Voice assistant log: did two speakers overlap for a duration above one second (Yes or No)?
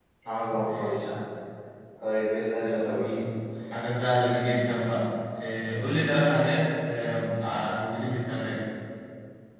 No